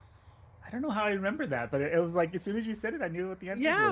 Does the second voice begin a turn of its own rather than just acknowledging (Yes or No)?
Yes